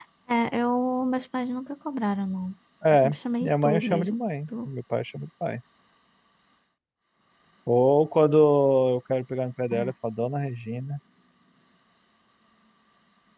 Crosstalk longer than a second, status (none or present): present